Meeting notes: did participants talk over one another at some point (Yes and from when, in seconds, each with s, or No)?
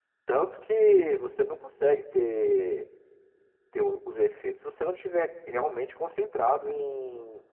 No